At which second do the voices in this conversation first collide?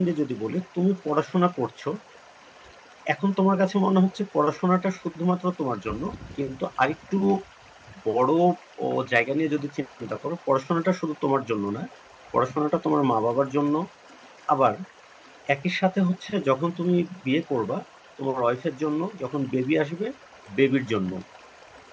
none

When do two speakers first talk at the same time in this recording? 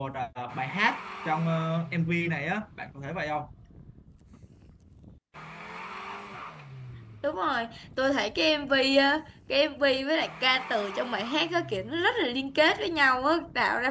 none

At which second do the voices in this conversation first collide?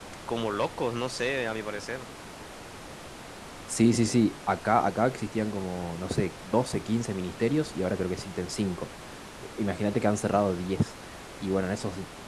none

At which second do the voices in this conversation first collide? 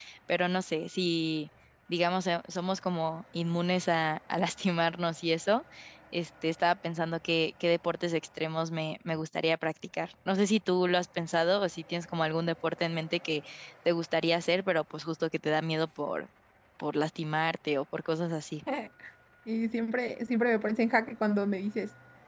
none

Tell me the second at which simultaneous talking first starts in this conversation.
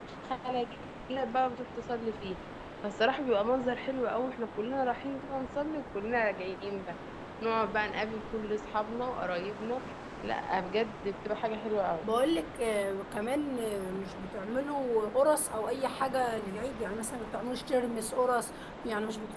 none

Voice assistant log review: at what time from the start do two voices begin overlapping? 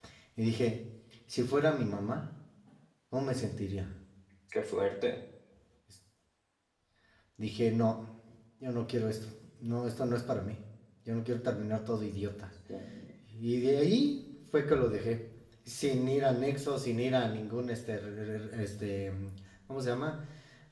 none

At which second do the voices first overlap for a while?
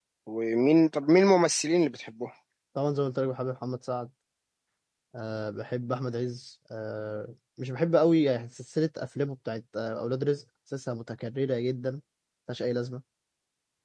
none

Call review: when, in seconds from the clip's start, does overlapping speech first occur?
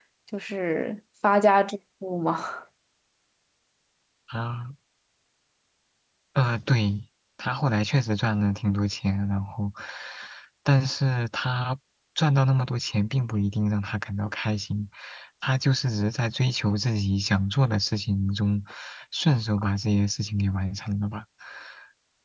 none

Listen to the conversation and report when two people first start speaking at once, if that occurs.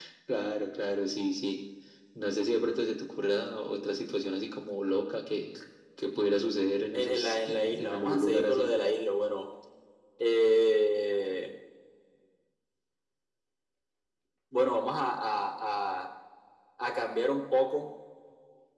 6.9 s

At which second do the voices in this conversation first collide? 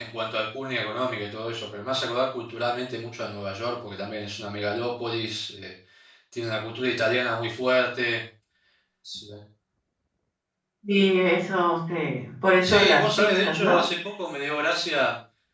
12.6 s

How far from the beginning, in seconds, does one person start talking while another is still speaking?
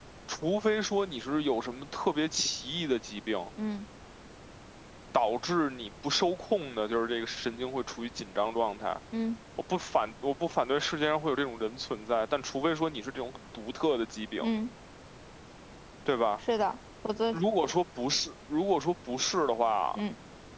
none

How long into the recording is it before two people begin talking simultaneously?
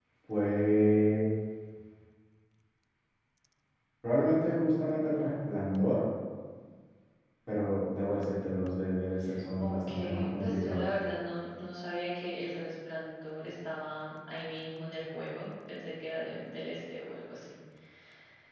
9.6 s

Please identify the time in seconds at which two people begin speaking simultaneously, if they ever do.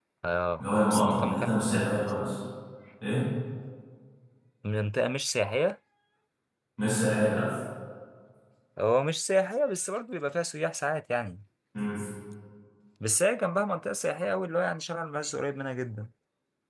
0.6 s

